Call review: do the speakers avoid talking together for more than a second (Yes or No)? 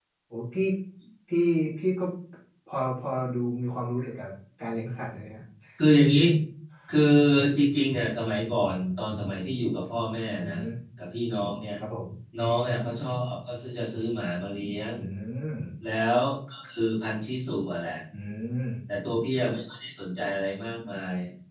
Yes